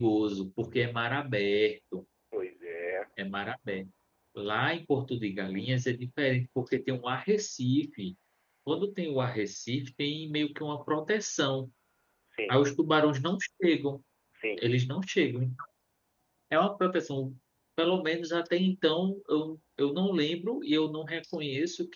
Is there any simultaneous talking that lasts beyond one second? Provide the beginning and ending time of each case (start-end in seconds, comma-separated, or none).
none